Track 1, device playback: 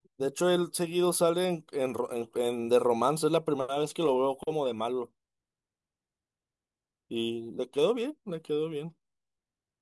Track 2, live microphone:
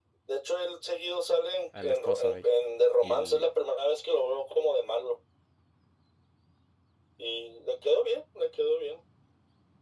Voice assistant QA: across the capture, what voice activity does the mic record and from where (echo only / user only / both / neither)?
both